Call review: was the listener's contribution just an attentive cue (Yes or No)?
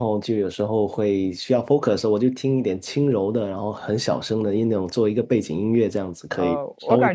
No